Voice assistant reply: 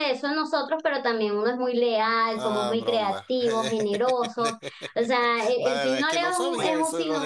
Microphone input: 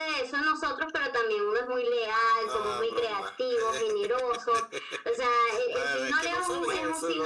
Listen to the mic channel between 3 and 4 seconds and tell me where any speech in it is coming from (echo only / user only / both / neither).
echo only